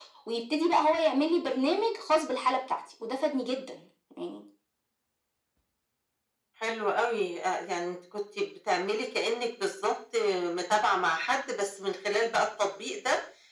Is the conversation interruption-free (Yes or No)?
Yes